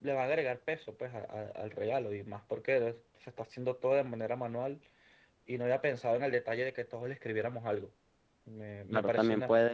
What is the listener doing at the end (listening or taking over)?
taking over